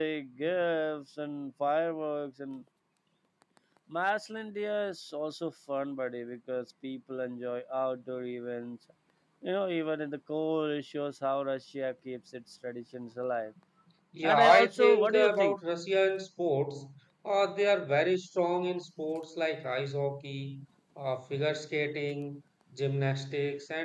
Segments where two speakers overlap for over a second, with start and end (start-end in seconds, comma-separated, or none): 14.2-15.6